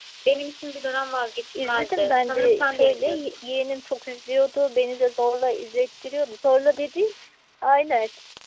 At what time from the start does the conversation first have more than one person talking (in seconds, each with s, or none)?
1.6 s